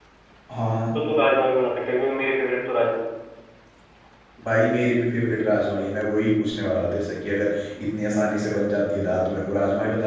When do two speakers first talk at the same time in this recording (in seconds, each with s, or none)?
none